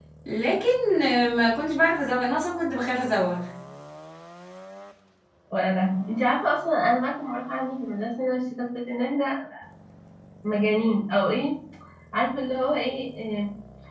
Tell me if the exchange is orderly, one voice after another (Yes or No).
Yes